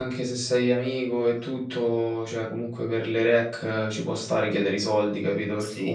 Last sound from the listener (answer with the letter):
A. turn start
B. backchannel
A